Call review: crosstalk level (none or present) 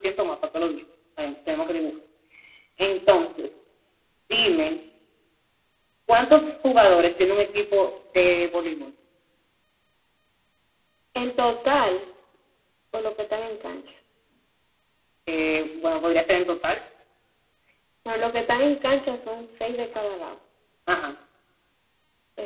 none